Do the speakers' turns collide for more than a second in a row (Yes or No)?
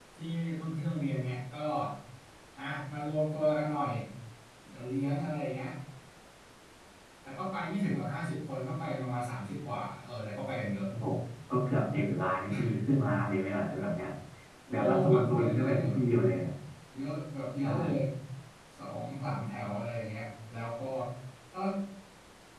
Yes